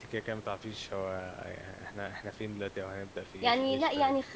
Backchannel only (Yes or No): No